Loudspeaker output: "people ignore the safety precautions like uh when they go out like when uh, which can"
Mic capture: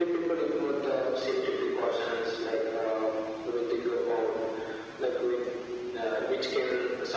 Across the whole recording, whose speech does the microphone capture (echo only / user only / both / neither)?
echo only